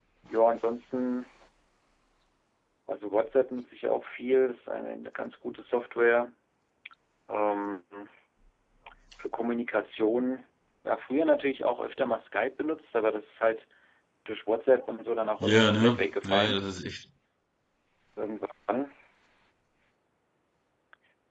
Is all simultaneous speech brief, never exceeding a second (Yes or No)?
No